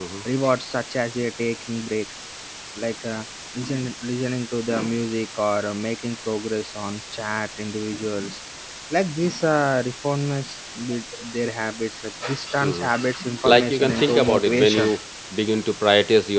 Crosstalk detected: Yes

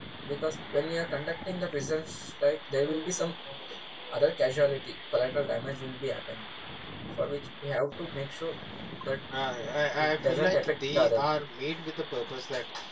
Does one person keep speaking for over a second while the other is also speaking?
Yes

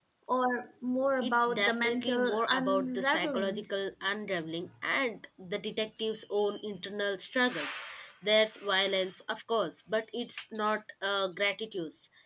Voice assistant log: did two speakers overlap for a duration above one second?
Yes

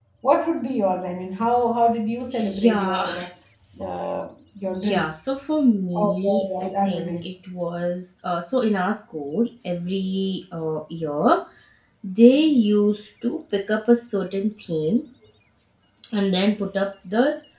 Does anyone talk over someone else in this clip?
Yes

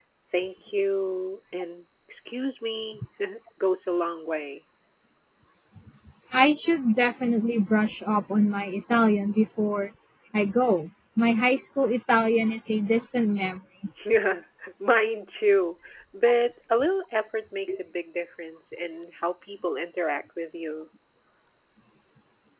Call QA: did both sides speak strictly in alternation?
Yes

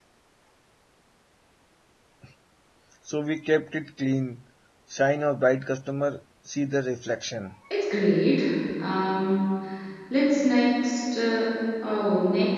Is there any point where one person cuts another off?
No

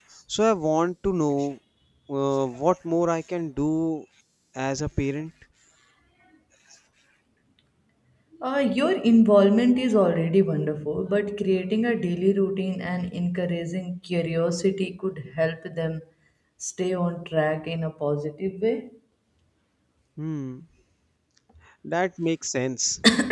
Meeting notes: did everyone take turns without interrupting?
Yes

